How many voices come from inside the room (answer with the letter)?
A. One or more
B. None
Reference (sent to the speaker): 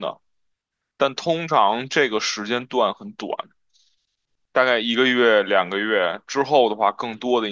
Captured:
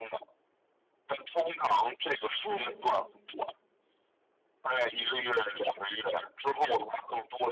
A